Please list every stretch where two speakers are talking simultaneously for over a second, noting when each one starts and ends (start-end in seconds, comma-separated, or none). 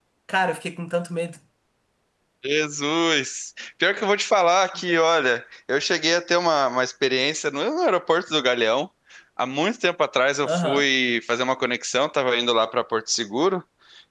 none